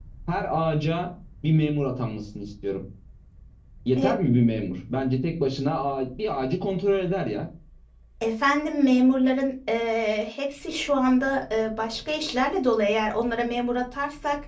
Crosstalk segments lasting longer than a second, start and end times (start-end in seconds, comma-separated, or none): none